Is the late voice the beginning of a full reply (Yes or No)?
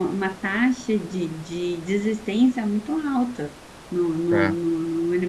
No